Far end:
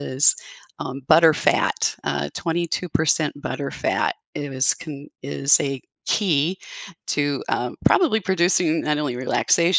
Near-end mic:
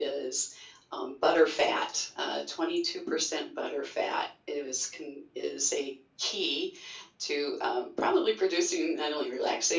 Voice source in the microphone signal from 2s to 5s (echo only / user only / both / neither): echo only